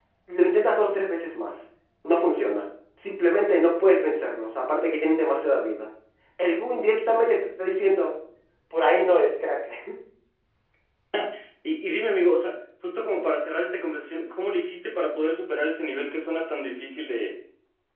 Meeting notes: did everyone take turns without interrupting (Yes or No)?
Yes